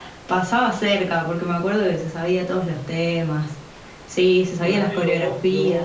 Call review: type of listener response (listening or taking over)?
taking over